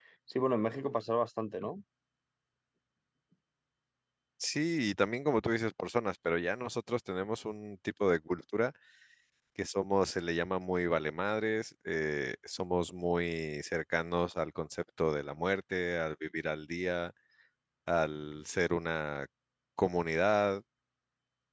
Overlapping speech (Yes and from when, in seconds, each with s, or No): No